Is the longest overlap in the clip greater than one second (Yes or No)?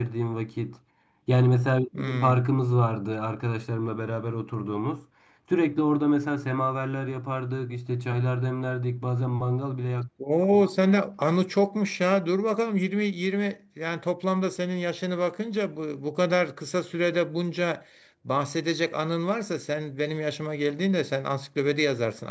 No